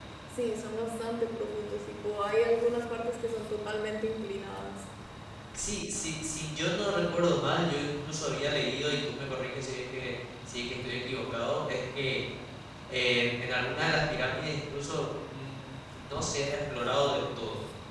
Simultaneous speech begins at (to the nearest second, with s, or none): none